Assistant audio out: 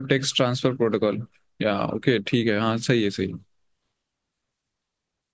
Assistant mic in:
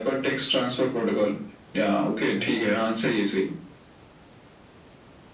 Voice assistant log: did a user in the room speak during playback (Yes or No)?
Yes